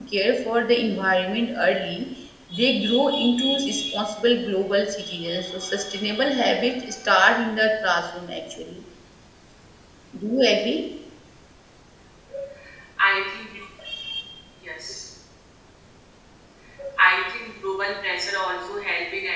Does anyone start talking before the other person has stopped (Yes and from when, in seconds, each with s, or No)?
No